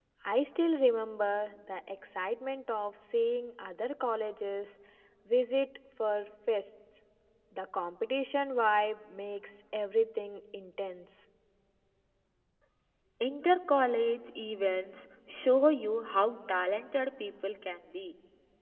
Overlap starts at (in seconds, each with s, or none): none